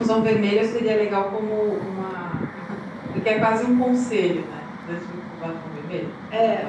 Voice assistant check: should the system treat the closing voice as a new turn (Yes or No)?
Yes